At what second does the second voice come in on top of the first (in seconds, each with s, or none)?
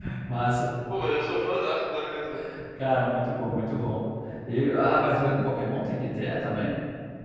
none